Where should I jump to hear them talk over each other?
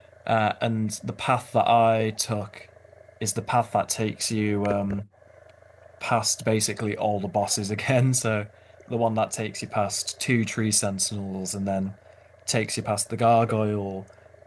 none

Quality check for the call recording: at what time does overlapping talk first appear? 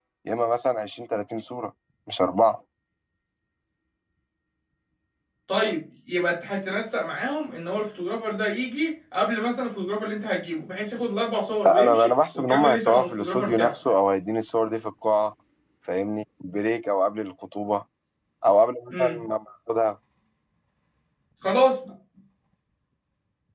11.6 s

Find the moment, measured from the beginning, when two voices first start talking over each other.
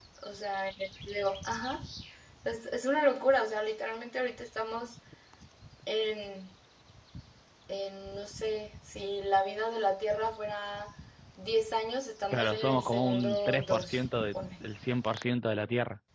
12.3 s

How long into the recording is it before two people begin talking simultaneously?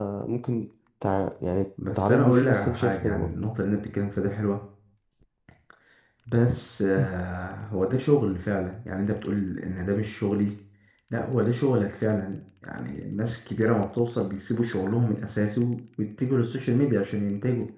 2.0 s

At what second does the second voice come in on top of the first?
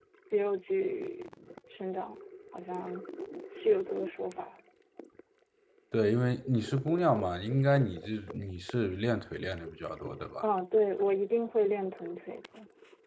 none

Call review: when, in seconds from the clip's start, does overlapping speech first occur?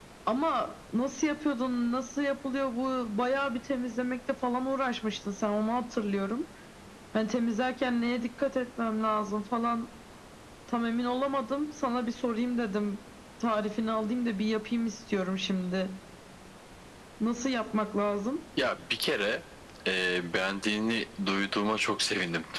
none

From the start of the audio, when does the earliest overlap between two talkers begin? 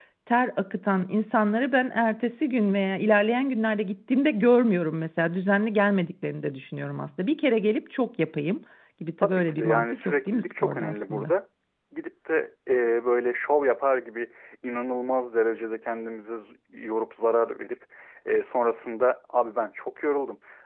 9.2 s

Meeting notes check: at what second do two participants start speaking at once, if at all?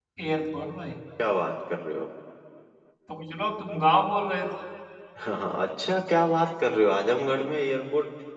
none

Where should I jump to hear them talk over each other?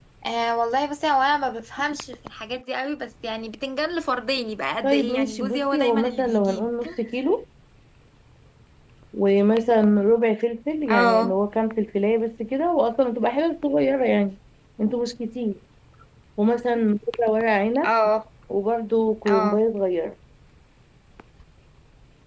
4.8 s

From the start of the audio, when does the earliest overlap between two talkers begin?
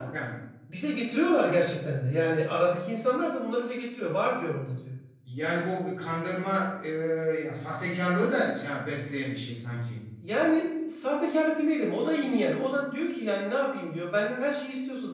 none

